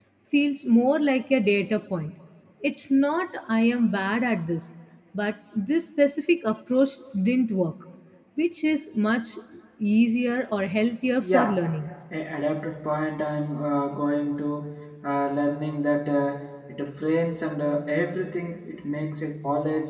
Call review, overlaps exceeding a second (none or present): none